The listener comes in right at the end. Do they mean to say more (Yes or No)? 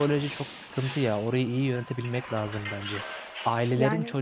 No